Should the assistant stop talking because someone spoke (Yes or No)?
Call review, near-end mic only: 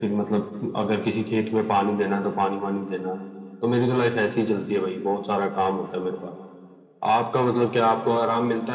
No